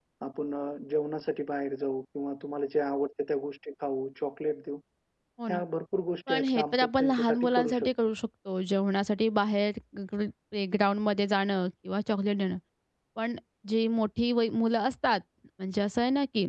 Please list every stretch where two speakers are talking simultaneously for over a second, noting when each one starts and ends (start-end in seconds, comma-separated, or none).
6.3-7.9